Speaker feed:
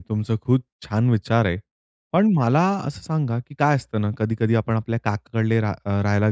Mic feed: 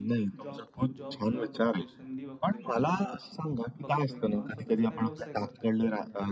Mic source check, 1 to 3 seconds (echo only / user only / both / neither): both